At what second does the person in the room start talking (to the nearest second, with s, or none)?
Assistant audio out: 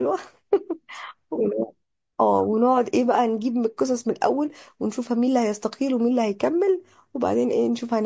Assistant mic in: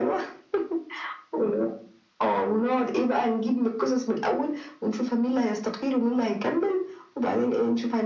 none